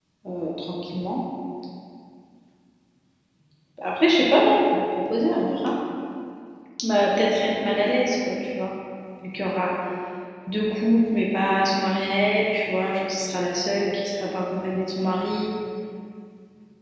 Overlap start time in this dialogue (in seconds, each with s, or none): none